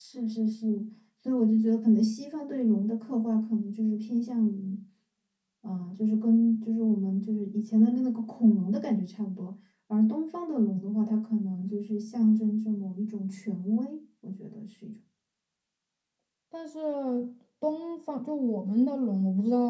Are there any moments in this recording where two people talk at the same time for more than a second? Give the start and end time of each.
none

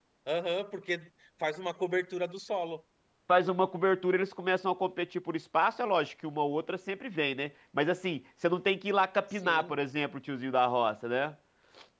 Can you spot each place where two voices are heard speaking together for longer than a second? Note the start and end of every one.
none

